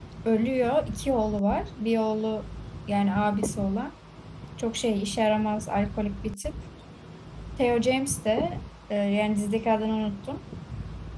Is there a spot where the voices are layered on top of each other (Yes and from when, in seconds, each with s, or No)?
No